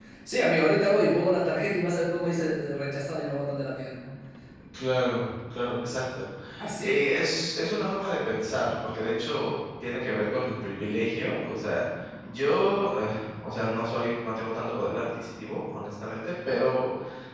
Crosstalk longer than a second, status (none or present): none